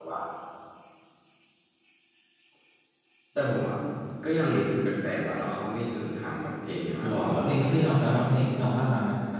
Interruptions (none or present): present